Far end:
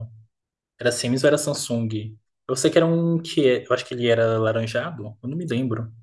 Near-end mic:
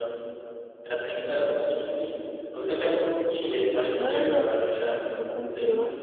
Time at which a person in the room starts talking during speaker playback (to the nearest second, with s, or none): 4 s